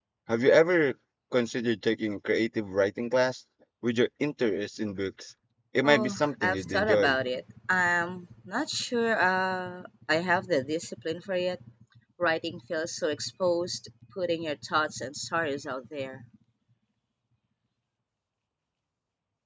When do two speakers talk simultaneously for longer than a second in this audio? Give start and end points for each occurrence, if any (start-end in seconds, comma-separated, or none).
5.8-7.2